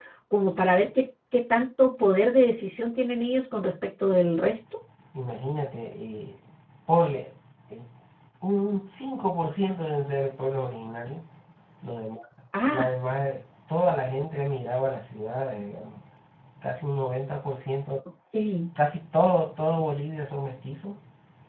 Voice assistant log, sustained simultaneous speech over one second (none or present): none